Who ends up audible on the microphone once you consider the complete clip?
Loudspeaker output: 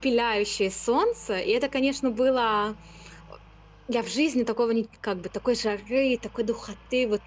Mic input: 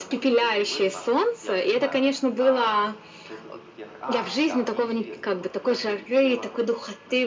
both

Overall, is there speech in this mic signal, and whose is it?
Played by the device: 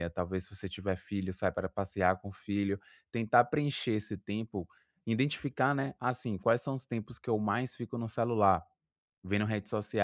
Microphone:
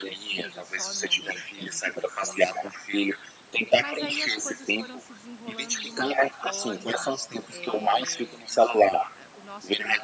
both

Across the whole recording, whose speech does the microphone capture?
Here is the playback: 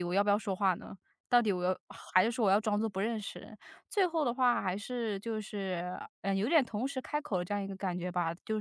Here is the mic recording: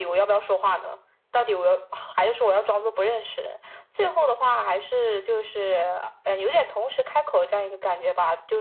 echo only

